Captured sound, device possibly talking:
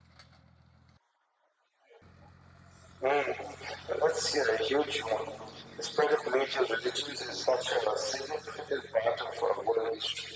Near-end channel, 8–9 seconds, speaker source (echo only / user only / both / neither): echo only